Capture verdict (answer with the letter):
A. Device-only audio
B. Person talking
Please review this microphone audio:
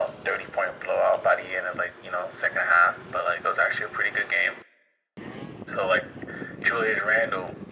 A